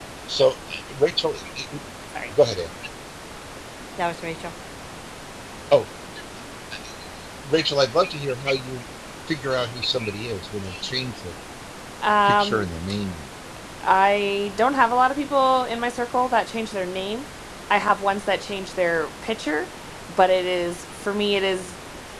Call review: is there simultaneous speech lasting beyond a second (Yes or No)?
No